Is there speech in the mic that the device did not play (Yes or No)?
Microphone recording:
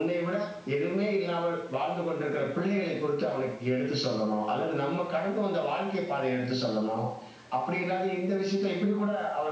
Yes